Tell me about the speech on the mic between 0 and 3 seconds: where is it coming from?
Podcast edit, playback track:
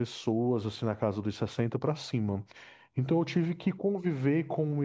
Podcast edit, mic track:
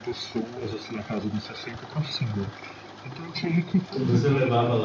echo only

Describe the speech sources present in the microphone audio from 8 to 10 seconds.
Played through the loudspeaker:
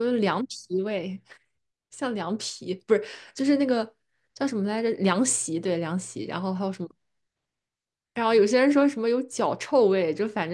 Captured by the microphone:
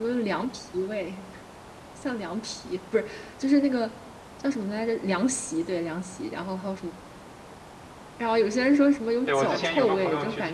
both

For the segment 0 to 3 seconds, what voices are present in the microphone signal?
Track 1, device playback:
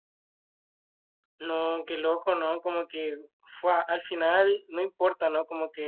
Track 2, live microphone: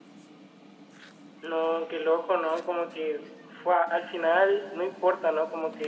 echo only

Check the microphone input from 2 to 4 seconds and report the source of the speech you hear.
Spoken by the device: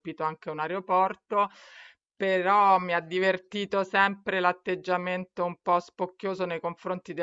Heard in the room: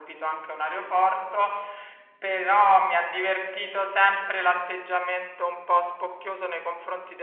echo only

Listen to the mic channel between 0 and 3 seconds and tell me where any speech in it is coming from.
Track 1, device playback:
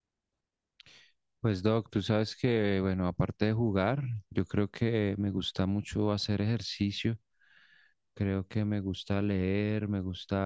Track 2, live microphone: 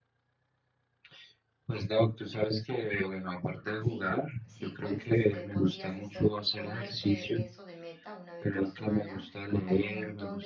echo only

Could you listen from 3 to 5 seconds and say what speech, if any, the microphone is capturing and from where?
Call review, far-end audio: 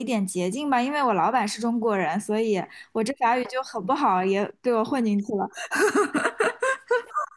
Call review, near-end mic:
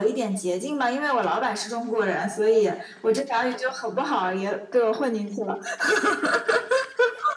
echo only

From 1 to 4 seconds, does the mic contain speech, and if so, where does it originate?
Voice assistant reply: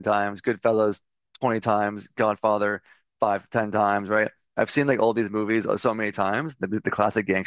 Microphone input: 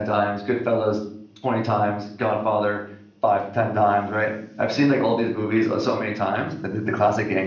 echo only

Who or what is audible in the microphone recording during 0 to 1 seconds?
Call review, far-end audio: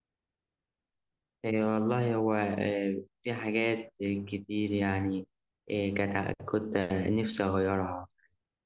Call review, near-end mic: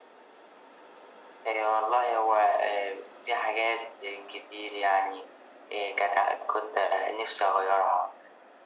neither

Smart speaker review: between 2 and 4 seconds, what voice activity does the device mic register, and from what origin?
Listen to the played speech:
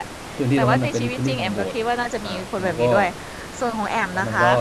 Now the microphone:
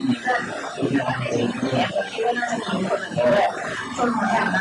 echo only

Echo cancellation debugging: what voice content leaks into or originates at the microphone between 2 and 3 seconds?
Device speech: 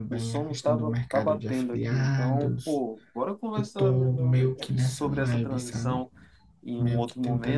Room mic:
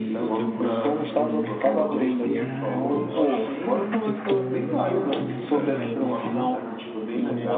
both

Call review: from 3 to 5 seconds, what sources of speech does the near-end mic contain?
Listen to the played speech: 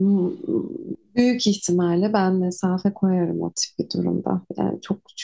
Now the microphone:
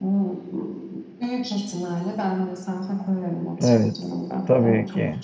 both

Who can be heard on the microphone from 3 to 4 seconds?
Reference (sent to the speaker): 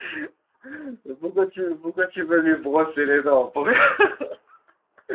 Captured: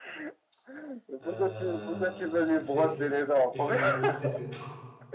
both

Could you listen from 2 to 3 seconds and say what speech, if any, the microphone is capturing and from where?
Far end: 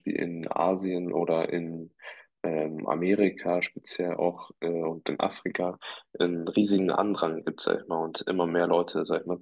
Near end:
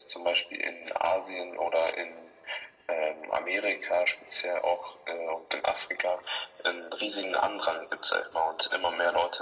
echo only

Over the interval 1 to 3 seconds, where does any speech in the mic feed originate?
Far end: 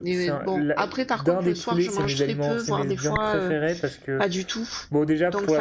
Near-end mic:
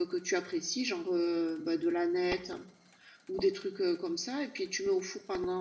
user only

